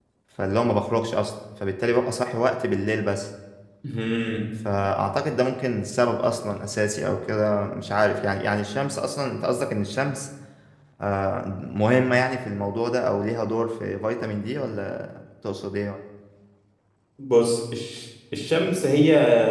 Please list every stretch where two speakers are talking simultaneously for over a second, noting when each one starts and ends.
none

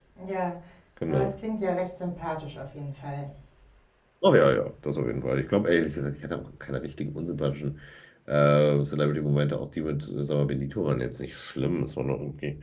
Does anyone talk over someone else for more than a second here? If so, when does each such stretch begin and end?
none

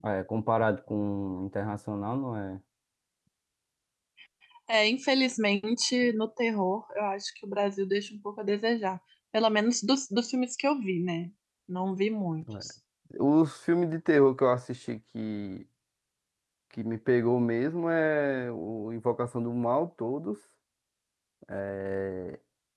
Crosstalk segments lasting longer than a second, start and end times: none

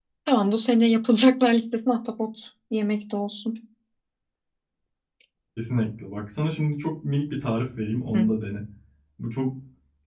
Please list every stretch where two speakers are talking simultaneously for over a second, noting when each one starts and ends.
none

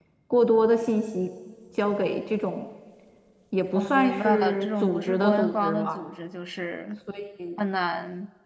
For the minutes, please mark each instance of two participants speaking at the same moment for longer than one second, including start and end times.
3.8-6.0

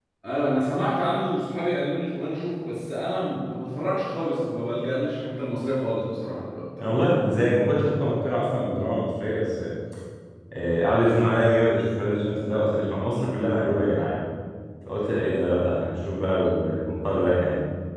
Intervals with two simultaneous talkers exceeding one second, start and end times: none

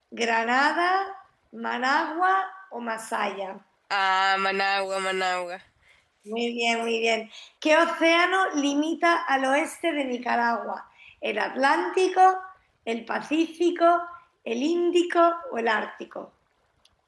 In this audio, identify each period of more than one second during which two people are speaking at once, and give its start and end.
none

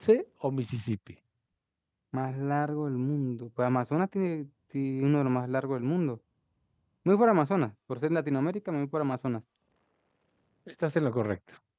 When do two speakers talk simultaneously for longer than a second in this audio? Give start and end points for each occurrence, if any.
none

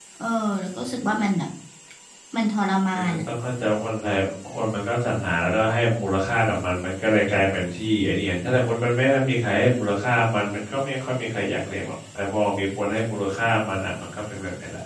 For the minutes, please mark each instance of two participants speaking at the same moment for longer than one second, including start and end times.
none

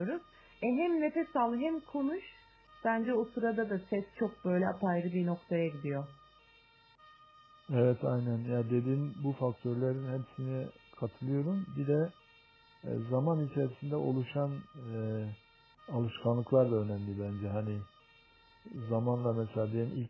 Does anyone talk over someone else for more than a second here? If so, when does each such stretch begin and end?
none

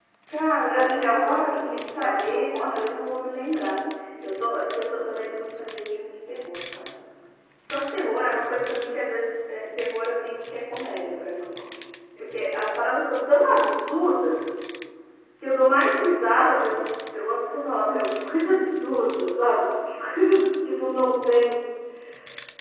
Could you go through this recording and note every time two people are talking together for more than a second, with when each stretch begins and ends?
0.7-2.8

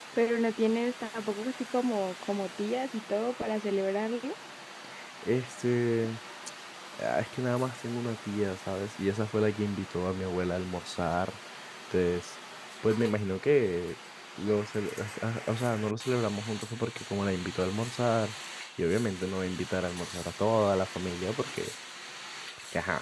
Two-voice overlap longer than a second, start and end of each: none

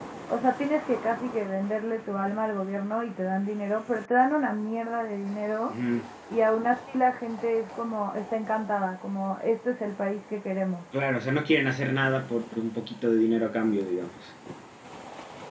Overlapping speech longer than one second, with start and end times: none

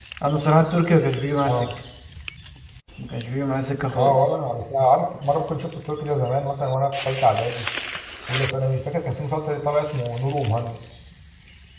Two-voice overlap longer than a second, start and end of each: none

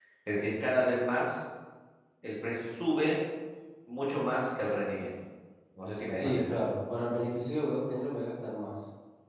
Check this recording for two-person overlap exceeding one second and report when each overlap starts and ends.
none

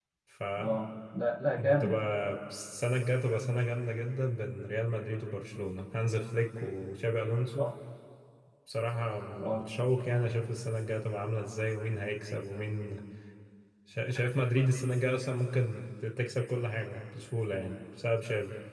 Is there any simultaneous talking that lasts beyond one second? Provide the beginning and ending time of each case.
none

